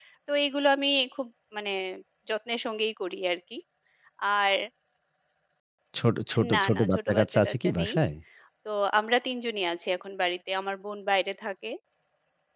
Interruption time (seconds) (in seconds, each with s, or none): 6.5 s